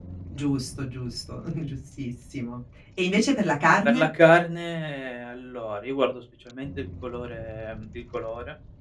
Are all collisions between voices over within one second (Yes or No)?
Yes